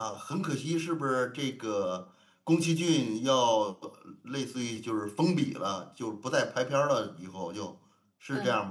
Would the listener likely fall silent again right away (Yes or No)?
No